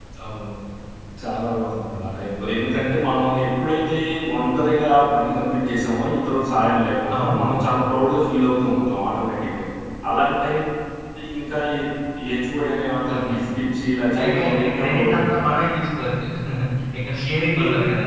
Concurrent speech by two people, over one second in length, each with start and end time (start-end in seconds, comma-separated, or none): 14.1-15.5